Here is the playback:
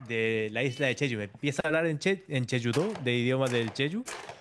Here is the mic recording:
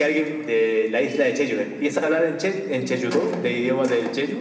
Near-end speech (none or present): present